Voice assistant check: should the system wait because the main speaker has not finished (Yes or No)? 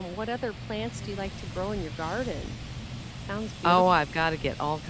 No